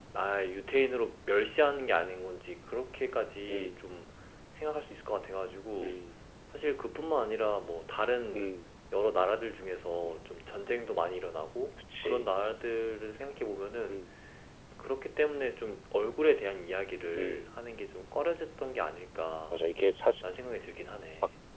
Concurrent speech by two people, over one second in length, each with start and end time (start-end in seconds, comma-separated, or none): none